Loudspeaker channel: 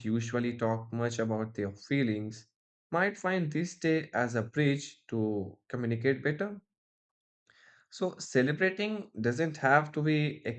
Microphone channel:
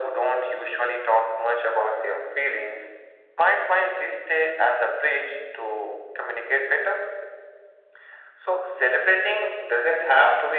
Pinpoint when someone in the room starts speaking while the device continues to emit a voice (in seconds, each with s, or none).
none